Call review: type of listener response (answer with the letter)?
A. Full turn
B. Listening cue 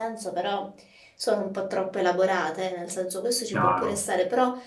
B